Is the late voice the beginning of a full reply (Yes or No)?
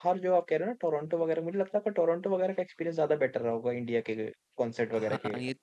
Yes